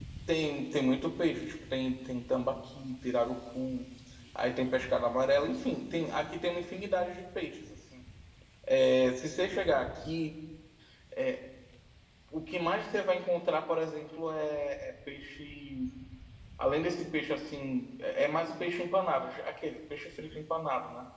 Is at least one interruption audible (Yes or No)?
No